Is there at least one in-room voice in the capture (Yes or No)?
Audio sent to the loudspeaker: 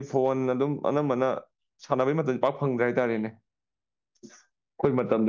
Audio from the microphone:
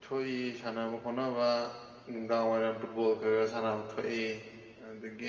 Yes